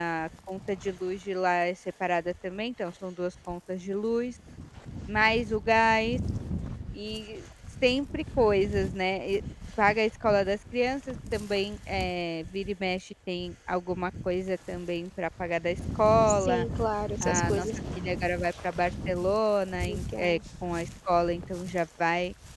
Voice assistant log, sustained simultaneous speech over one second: none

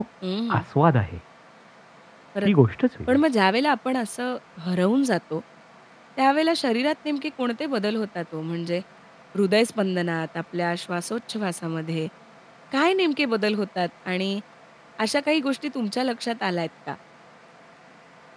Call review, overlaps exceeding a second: none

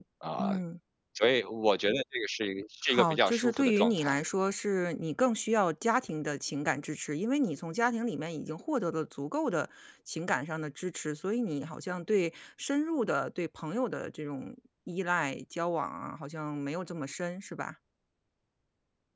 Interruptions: present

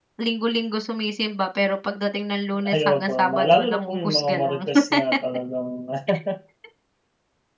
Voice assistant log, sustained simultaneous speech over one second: present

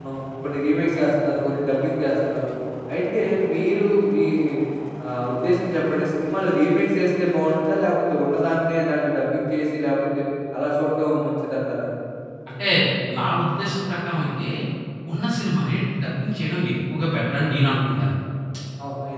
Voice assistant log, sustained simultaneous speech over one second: none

